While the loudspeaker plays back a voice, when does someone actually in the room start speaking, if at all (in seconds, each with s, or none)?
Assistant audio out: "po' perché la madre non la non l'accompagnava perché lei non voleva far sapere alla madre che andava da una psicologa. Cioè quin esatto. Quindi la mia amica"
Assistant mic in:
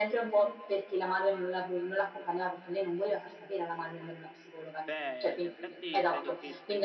4.8 s